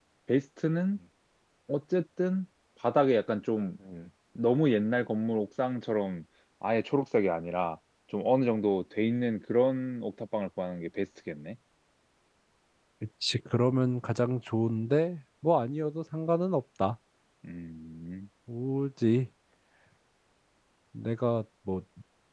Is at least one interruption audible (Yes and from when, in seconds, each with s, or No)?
No